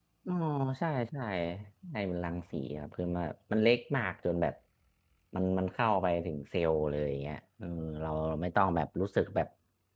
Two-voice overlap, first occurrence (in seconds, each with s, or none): none